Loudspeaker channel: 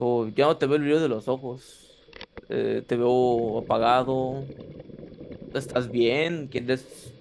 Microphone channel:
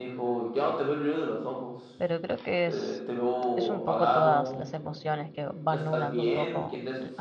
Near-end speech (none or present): present